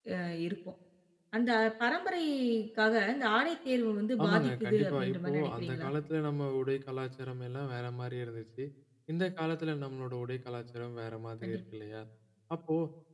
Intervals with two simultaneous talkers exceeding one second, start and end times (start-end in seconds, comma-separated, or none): 4.2-5.9